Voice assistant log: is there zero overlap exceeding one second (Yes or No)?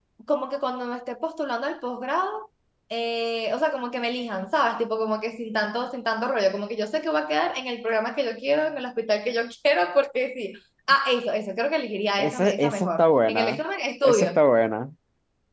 No